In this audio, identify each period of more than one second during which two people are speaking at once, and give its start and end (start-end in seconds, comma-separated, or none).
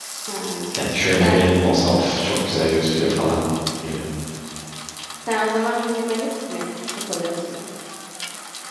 none